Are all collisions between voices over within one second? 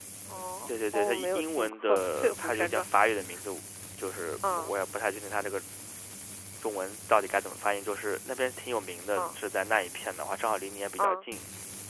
No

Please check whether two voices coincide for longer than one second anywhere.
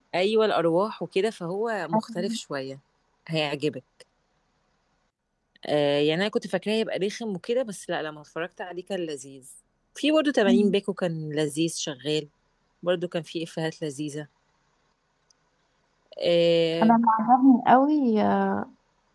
No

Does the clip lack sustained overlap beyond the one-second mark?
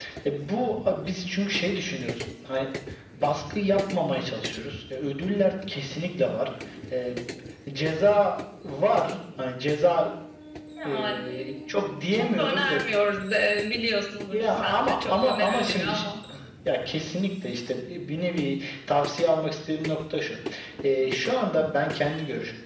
No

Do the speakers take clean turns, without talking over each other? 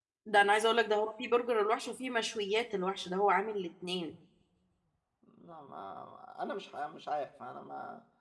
Yes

